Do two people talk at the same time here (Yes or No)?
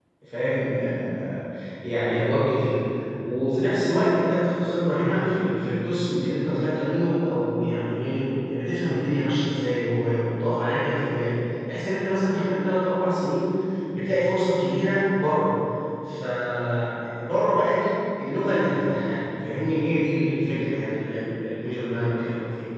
No